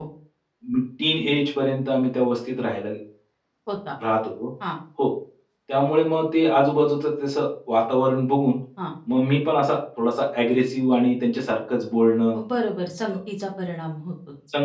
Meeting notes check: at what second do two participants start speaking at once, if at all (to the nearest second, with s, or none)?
none